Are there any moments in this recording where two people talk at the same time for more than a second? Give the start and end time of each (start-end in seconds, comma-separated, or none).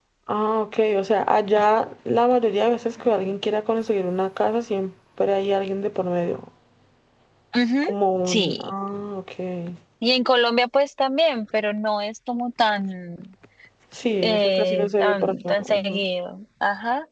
14.2-16.0